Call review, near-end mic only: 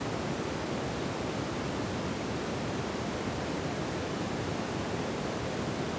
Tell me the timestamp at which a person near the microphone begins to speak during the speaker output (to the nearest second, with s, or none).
none